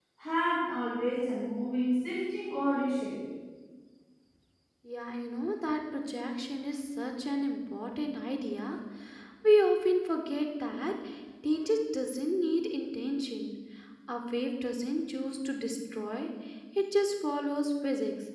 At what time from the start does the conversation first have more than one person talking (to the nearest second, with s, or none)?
none